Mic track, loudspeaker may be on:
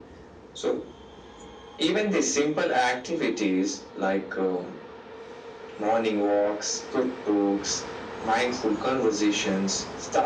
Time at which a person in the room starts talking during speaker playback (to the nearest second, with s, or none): none